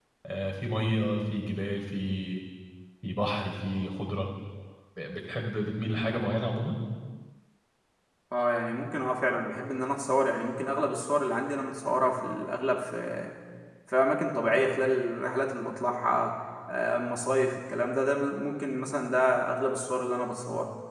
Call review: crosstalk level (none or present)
none